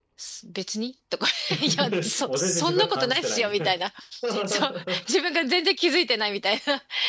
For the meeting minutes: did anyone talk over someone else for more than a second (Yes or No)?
Yes